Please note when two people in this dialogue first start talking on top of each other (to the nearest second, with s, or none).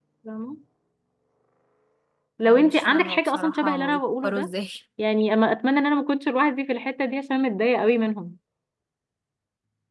2 s